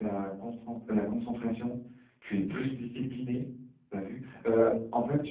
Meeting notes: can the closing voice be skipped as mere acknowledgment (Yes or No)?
Yes